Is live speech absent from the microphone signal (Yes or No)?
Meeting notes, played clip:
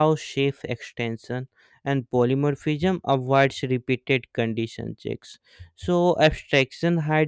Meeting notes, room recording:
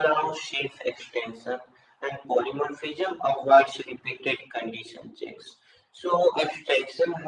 Yes